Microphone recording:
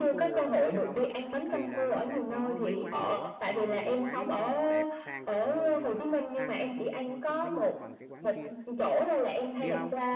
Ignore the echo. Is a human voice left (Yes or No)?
Yes